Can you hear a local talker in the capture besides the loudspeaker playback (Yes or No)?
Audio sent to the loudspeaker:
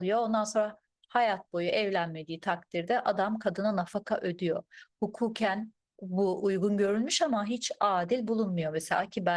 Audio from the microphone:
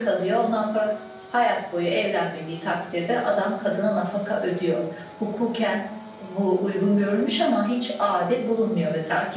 No